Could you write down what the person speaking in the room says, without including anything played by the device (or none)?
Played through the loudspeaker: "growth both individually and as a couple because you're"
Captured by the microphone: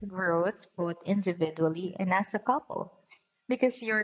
none